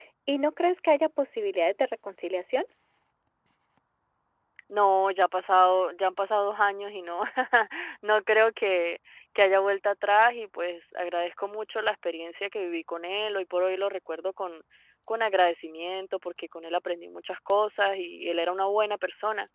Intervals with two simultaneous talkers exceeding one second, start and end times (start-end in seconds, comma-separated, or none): none